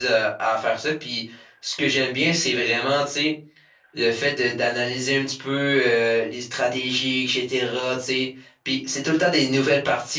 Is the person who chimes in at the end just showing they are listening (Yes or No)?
Yes